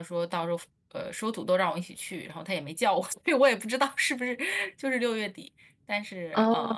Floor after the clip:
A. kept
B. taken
A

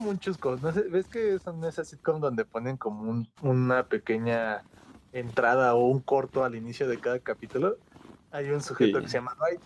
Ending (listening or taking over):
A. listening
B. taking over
A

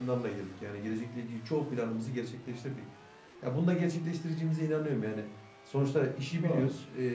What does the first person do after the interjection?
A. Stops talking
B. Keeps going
B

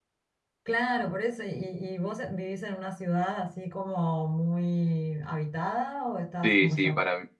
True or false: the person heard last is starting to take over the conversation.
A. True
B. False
A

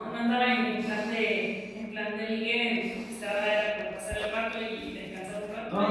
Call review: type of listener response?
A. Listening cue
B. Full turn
B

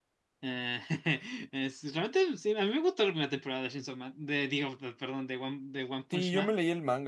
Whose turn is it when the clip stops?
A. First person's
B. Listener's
B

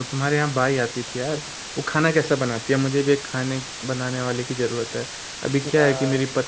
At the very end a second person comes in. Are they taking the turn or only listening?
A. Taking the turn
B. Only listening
B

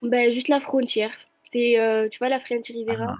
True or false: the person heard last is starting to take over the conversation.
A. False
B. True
A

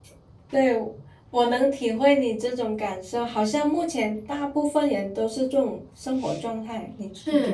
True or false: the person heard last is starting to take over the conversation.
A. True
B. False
A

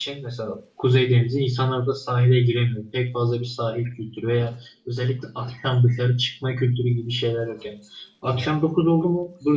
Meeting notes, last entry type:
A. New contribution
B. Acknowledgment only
B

